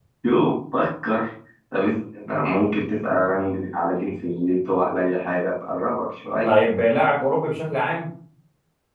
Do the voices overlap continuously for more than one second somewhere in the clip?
No

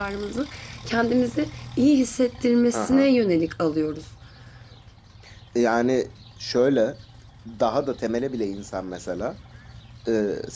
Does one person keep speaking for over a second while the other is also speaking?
No

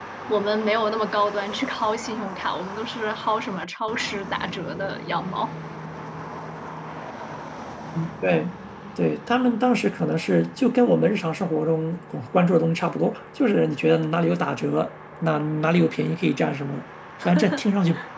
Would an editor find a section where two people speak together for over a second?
No

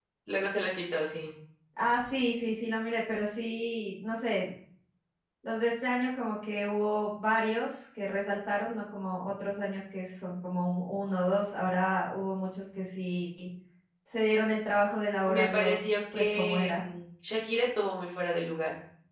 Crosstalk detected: Yes, from 15.2 s

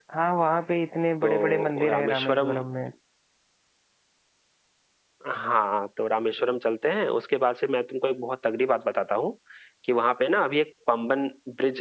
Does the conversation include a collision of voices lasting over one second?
Yes, from 1.2 s

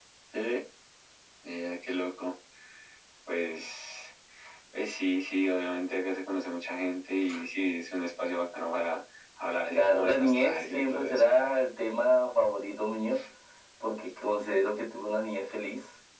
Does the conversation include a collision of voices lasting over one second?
Yes, from 9.8 s

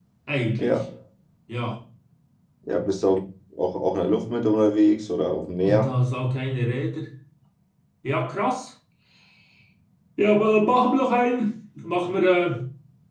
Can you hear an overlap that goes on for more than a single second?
No

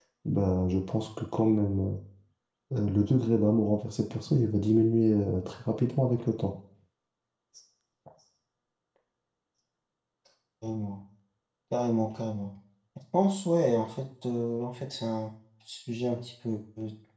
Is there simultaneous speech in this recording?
No

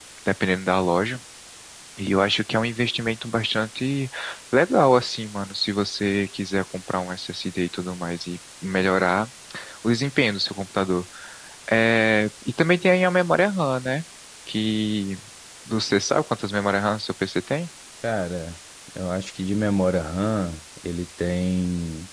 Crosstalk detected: No

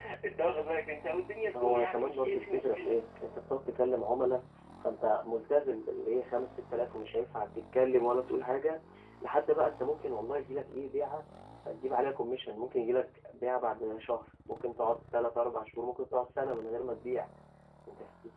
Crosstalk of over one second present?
Yes, from 1.5 s

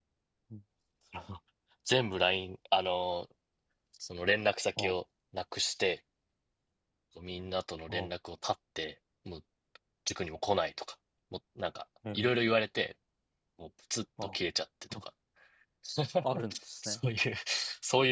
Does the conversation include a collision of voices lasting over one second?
No

